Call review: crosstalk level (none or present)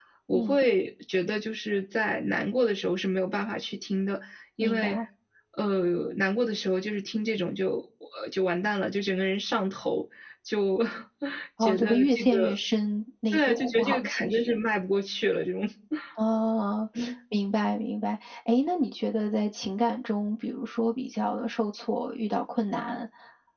present